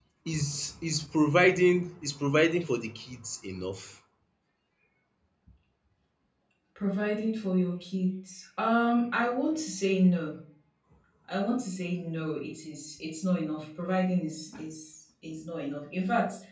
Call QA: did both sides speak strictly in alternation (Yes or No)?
Yes